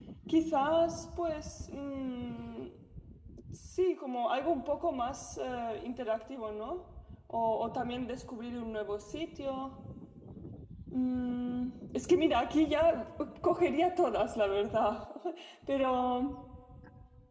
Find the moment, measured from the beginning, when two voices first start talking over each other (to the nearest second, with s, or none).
none